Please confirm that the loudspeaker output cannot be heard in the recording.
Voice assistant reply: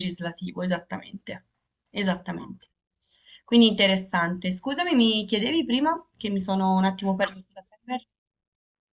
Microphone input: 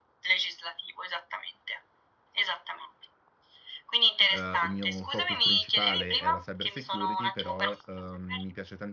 No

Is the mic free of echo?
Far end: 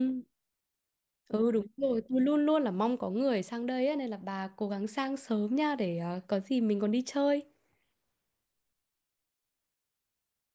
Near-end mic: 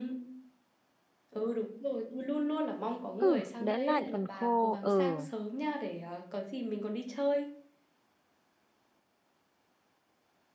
No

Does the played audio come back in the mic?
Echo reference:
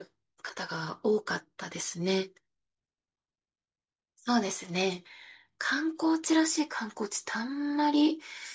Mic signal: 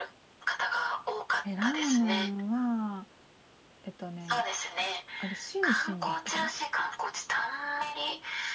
Yes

